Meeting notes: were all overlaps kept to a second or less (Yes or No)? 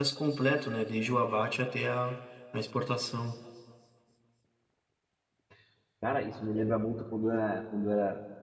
Yes